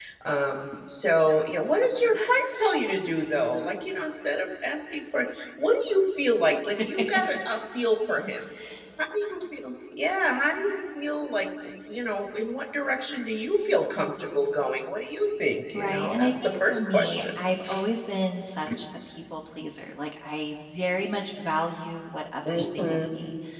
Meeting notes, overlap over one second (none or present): present